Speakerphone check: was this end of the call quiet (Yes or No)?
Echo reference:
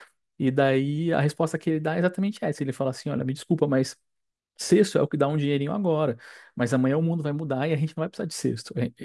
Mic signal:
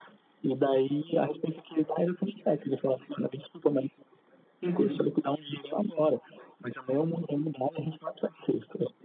No